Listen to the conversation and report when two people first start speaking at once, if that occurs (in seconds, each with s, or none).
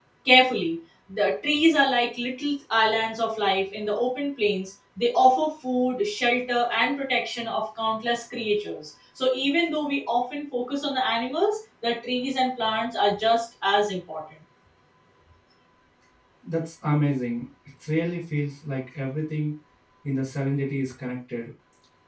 none